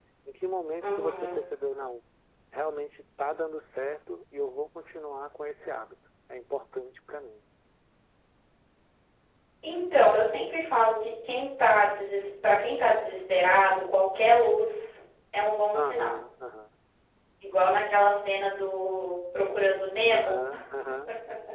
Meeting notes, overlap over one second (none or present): none